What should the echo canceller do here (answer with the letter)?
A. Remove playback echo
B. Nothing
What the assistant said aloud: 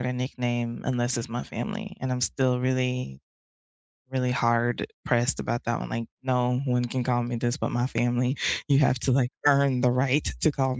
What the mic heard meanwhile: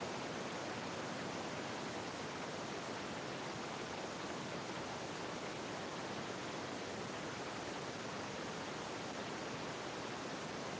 B